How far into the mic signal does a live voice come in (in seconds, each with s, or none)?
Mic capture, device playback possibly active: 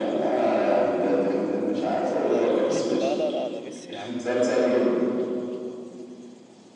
2.2 s